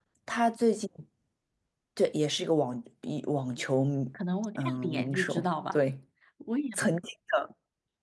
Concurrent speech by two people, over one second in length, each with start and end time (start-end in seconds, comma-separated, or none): 4.6-5.8